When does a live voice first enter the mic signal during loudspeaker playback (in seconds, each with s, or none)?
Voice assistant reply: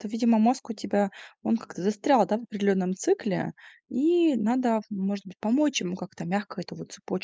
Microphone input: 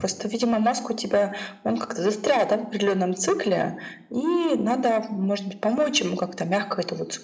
none